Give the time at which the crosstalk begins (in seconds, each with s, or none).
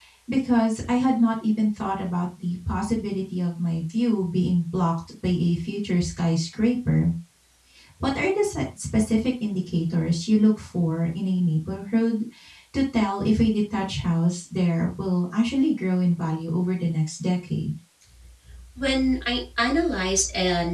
none